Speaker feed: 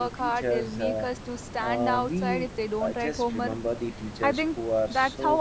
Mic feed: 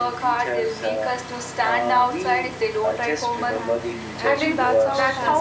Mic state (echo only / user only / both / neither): both